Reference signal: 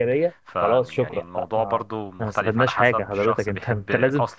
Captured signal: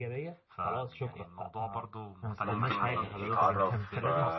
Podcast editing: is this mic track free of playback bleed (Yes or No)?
No